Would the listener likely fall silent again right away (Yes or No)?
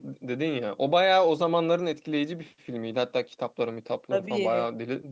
Yes